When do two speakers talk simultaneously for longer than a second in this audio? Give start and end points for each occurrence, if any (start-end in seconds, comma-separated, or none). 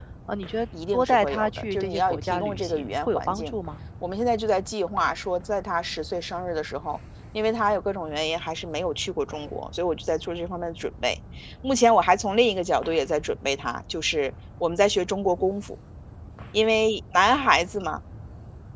0.9-3.5